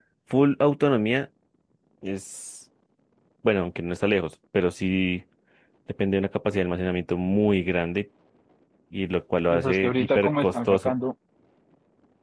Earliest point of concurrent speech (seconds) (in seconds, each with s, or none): 9.5 s